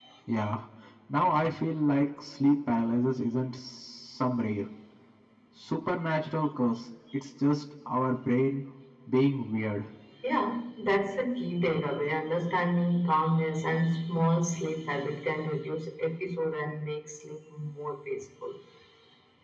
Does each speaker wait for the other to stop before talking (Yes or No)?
Yes